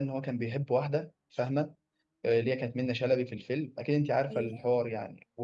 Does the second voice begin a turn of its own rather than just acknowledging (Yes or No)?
No